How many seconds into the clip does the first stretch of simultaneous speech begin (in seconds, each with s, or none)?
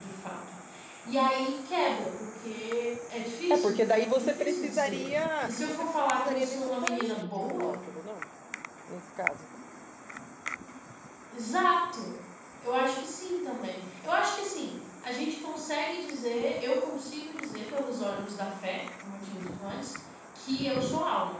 3.5 s